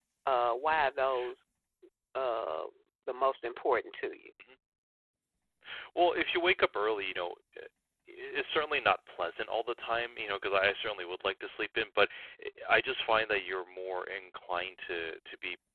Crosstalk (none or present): none